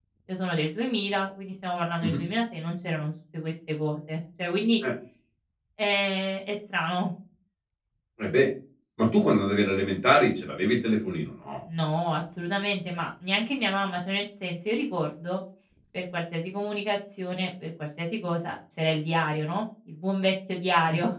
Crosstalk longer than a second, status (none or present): none